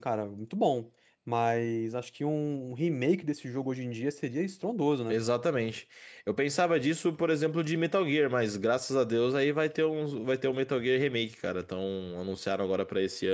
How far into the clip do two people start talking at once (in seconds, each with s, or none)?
none